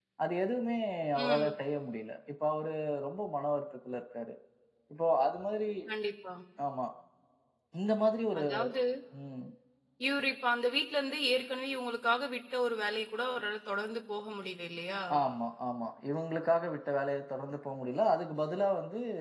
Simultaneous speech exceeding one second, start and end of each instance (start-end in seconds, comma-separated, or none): none